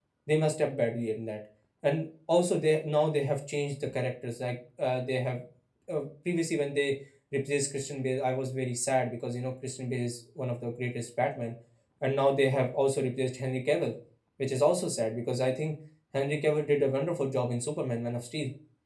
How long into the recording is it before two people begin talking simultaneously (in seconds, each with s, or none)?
none